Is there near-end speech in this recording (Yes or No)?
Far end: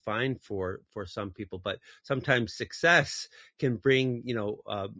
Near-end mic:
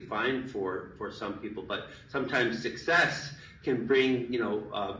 No